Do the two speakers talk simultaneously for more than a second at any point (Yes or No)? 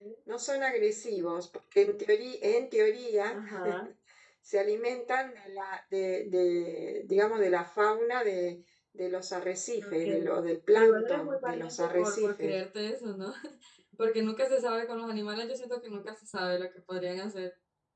Yes